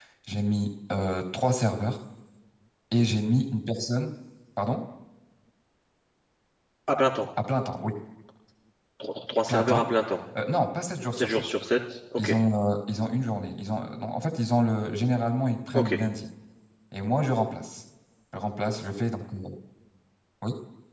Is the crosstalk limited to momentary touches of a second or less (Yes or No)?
Yes